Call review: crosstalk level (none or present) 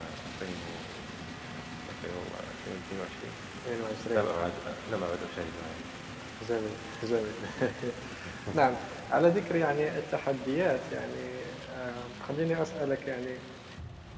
none